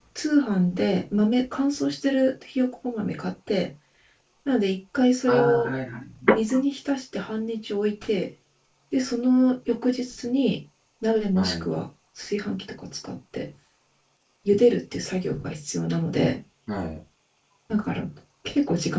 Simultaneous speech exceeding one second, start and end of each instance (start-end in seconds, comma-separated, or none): none